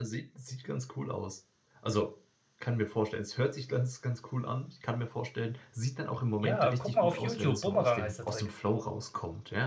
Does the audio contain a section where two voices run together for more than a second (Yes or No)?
Yes